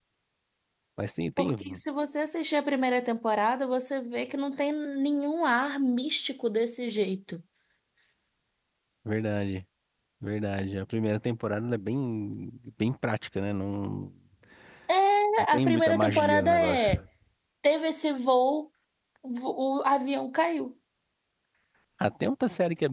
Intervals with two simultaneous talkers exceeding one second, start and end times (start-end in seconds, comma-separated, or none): 15.5-17.0